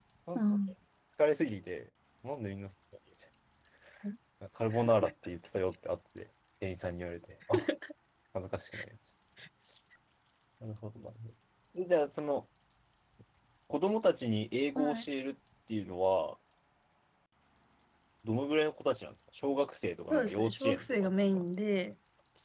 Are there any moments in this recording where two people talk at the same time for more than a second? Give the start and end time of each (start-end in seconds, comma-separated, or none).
20.1-21.4